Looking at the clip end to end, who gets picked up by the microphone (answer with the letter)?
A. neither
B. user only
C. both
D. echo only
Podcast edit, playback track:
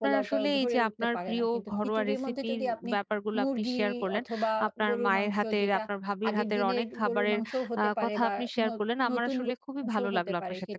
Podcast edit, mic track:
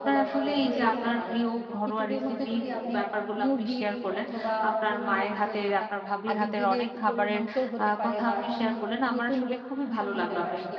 D